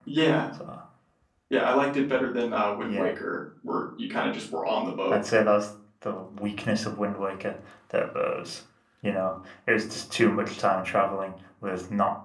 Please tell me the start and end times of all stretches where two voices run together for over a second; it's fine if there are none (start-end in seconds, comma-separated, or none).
none